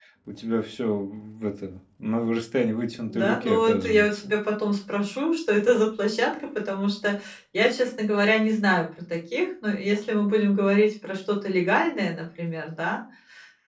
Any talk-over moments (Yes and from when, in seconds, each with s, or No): Yes, from 3.1 s